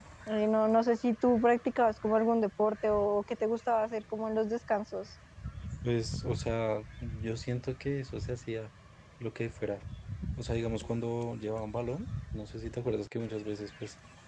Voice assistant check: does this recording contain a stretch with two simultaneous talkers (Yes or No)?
No